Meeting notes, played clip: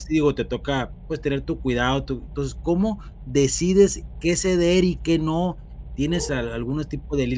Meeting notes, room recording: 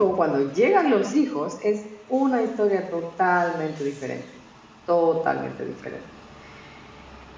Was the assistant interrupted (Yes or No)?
Yes